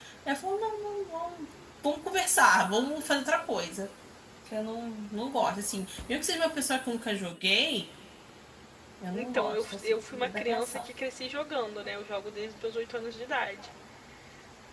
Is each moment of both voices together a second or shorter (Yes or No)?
No